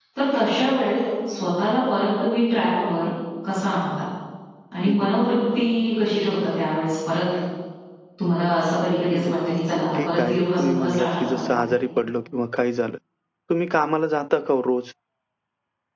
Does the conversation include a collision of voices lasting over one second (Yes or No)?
Yes